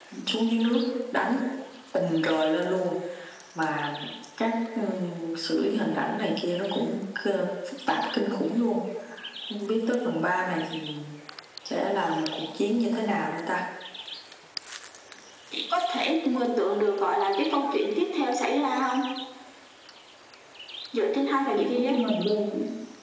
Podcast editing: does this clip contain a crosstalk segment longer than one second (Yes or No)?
No